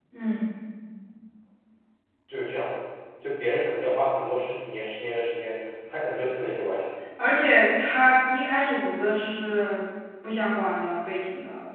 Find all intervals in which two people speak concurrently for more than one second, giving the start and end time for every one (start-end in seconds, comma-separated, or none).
none